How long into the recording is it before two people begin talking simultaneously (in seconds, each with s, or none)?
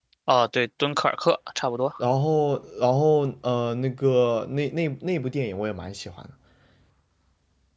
none